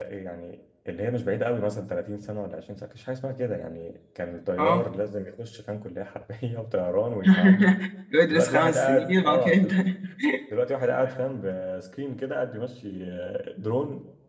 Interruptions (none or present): present